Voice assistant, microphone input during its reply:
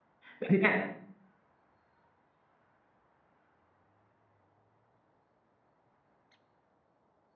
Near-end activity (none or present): present